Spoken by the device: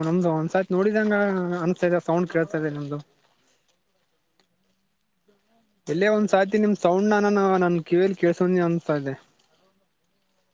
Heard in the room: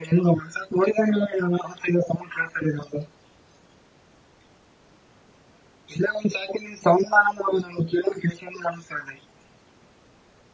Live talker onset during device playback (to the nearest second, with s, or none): none